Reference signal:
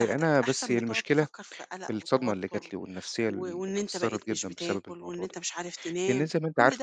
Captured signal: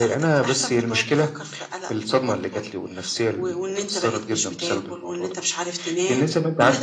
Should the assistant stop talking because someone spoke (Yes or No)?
No